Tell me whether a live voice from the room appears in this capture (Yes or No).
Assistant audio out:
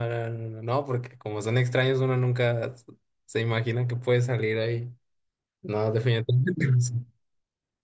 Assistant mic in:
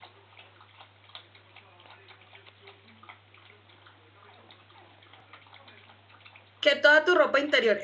Yes